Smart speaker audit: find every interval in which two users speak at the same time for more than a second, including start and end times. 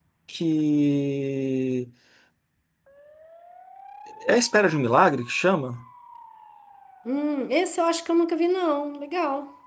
none

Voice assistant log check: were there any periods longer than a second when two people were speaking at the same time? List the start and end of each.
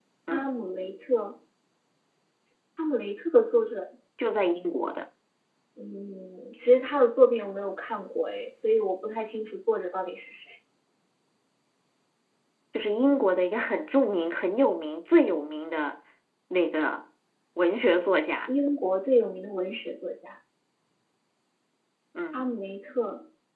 none

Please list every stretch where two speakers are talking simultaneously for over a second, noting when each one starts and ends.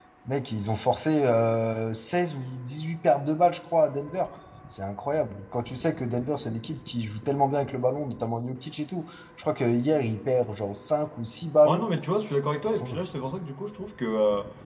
none

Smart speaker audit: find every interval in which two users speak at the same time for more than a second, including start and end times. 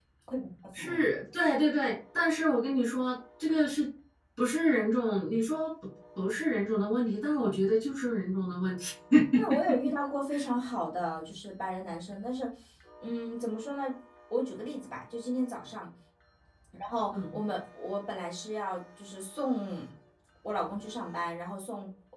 none

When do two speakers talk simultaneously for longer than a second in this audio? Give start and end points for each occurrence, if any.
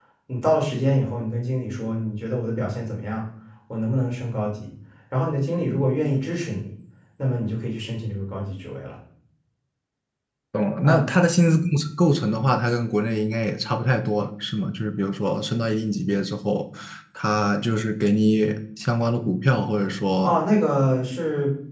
none

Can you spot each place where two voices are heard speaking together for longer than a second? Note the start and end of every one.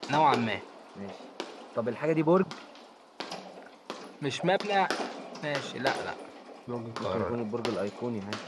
none

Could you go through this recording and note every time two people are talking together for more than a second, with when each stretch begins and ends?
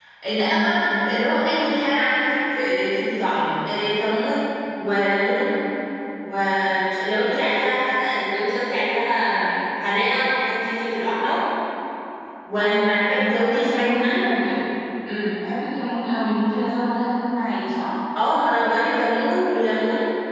12.6-14.3

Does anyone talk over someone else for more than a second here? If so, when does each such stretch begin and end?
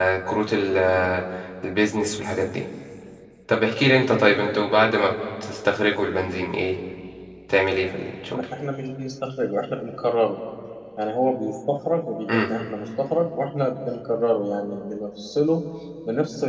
none

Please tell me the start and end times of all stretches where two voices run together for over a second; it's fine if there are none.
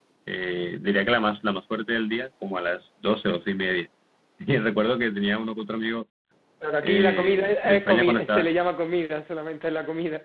6.8-8.5

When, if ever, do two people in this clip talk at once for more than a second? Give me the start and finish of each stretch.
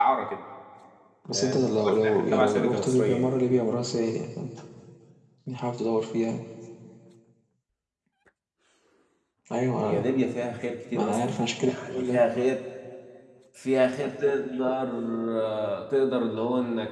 1.3-3.3, 10.9-12.2

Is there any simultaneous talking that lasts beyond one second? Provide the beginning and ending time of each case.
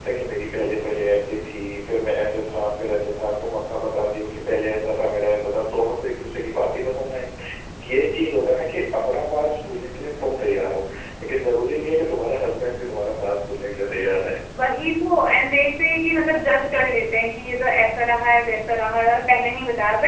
none

